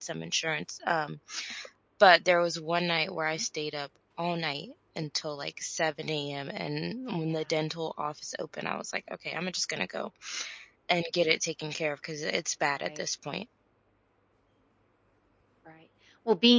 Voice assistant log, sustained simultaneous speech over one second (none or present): none